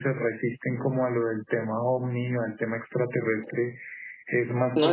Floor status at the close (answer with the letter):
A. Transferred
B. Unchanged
A